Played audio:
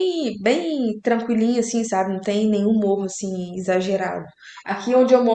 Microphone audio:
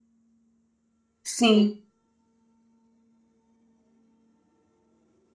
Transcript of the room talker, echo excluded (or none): Sim,